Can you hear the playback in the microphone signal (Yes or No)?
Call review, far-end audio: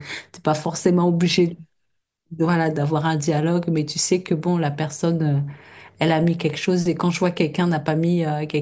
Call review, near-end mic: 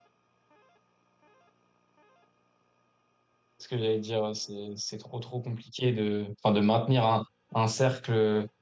No